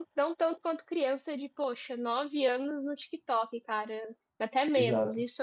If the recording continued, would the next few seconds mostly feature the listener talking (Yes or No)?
Yes